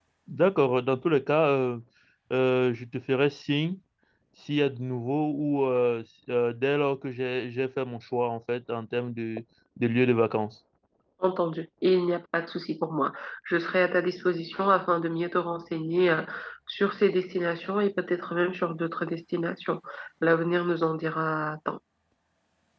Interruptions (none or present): none